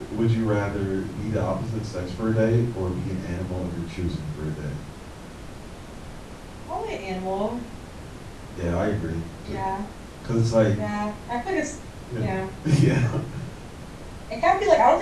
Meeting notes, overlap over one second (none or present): none